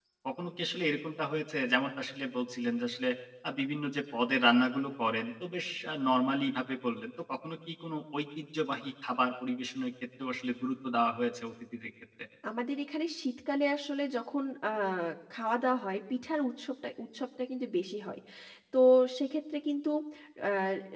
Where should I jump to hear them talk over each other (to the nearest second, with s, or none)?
none